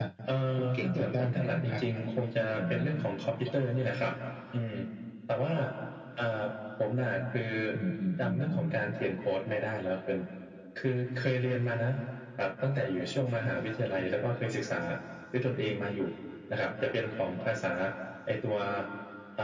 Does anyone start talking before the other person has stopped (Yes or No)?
Yes